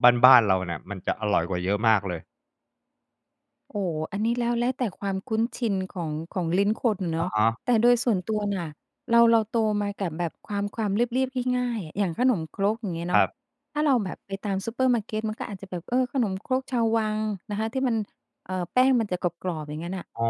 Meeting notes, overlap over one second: none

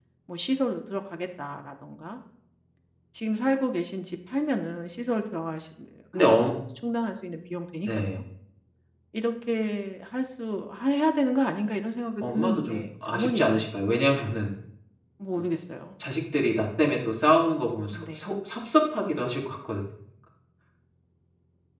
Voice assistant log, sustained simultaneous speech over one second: present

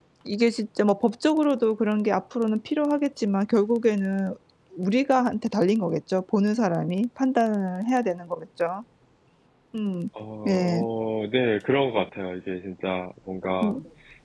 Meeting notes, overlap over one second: none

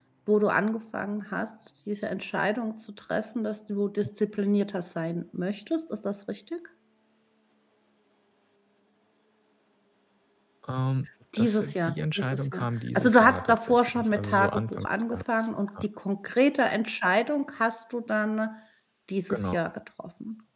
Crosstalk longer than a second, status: present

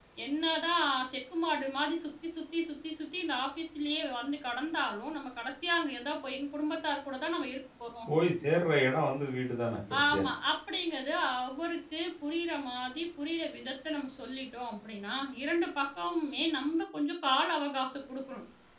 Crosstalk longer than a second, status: none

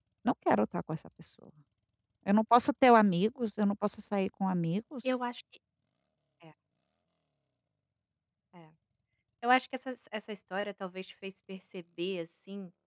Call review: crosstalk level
none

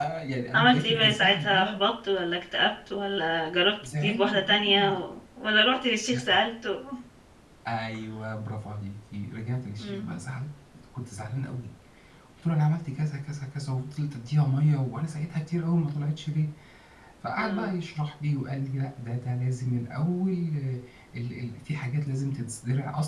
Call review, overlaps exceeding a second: present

